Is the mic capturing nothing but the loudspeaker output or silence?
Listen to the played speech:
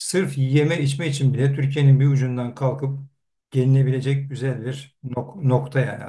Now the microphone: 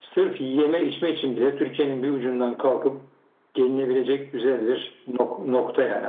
Yes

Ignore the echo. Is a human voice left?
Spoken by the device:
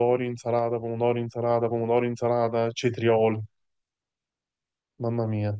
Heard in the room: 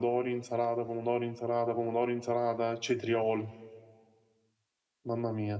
No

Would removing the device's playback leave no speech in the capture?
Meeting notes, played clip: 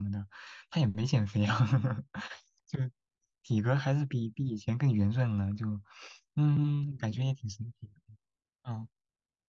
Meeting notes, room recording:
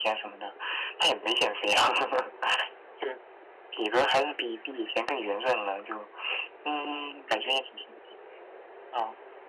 Yes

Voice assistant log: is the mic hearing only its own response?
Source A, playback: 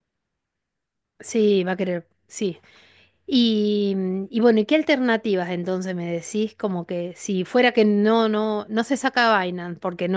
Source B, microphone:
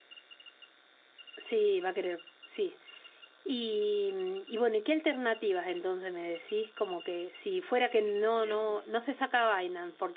No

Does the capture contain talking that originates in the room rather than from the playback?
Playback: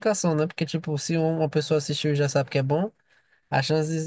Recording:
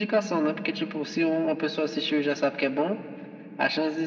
No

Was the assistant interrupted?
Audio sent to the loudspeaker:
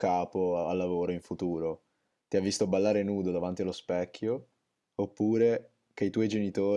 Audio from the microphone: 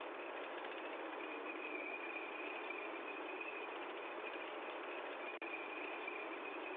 No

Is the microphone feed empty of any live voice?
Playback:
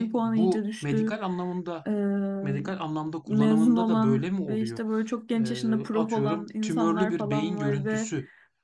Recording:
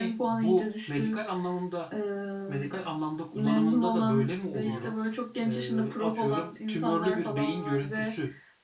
No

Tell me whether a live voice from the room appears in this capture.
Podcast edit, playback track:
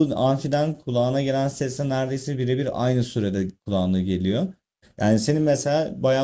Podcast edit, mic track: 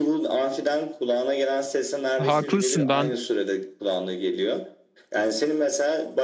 Yes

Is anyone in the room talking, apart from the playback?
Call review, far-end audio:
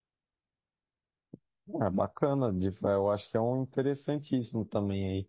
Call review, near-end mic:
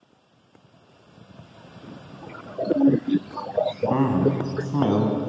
Yes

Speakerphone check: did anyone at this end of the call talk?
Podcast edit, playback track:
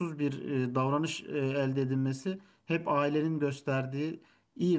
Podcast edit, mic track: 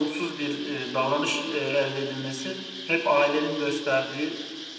No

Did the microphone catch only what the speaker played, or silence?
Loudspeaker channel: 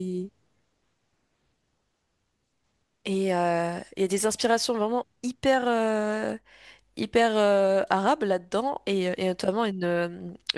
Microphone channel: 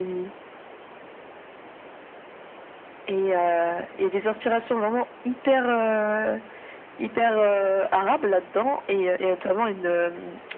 Yes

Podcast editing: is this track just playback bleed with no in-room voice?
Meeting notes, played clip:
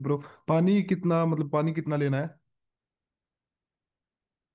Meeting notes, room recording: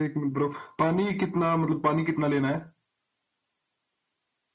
Yes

